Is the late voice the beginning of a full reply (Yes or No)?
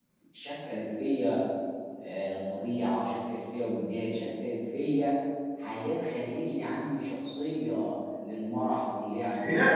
Yes